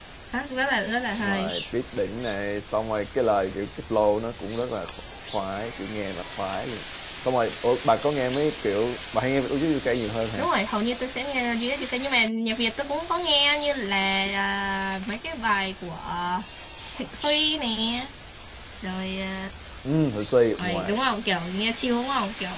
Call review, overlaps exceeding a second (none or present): none